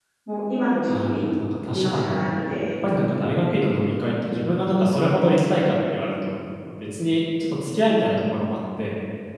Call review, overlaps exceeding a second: none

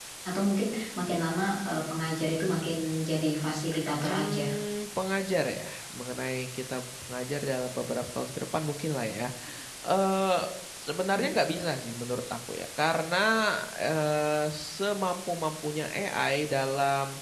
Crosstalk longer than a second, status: none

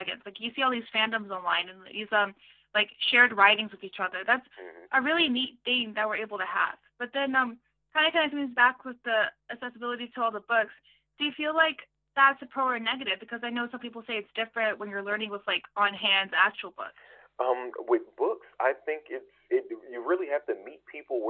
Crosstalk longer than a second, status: none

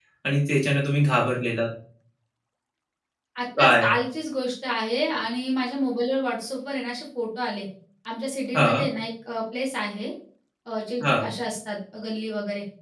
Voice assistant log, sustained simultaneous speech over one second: none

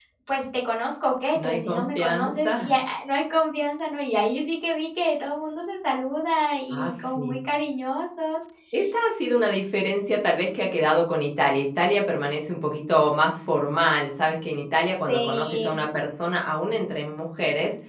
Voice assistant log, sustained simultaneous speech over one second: present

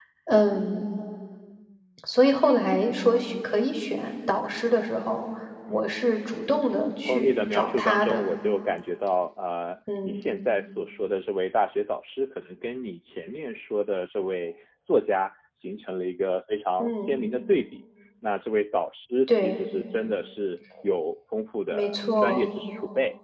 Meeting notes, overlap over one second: present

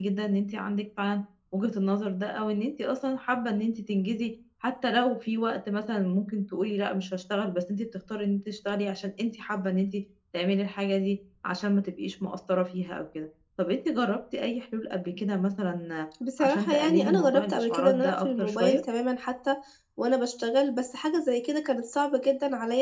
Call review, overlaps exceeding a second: present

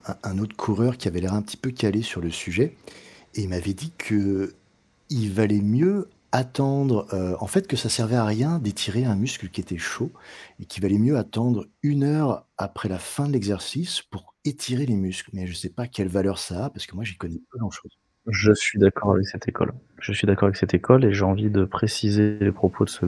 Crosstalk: none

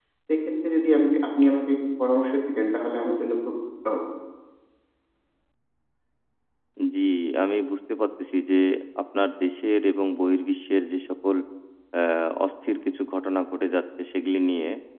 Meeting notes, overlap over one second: none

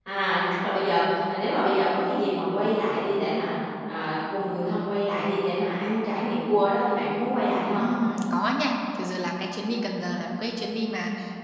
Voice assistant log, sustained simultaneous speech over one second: none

